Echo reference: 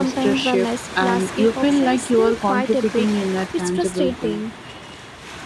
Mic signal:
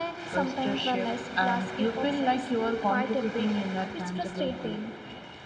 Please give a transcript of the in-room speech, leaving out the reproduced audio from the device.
none

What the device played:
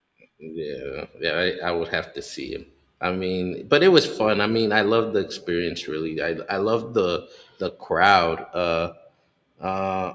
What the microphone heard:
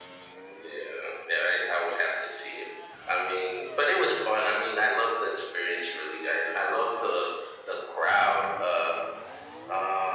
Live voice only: none

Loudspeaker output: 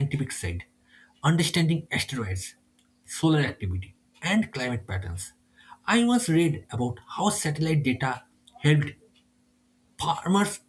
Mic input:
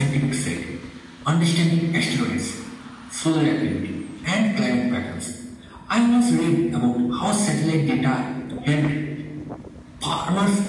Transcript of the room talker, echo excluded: none

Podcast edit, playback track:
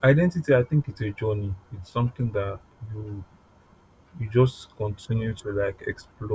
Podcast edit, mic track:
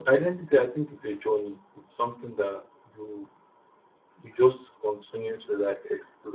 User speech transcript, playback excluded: none

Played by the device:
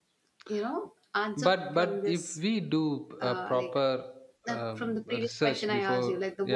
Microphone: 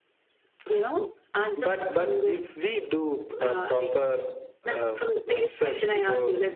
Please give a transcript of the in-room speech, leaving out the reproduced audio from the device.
none

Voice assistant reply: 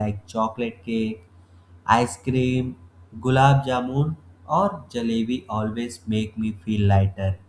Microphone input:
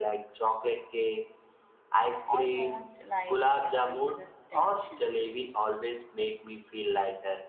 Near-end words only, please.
almost like it releases tension.

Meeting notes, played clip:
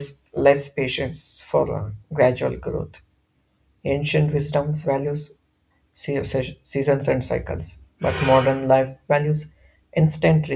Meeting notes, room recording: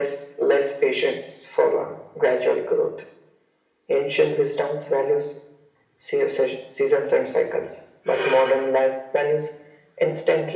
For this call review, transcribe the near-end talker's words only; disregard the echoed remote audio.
none

